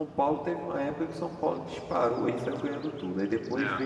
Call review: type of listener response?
listening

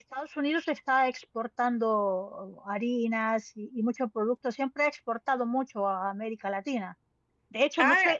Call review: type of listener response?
listening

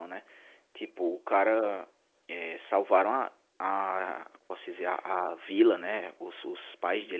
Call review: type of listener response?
listening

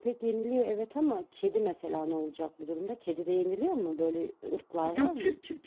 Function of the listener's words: taking over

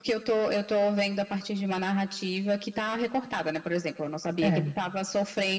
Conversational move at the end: listening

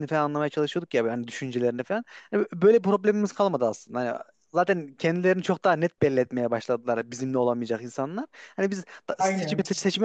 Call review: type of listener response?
listening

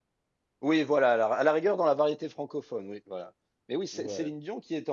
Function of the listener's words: listening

